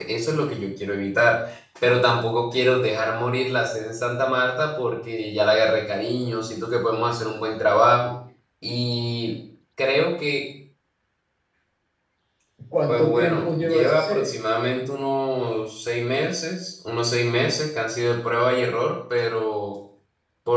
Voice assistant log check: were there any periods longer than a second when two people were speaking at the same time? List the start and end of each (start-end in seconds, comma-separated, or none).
12.9-14.3